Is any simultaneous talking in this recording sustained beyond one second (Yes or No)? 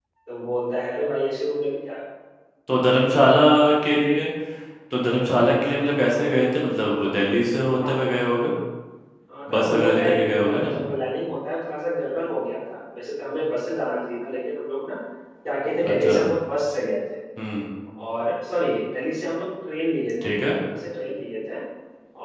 Yes